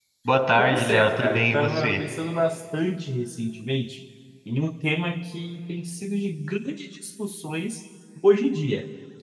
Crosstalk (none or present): present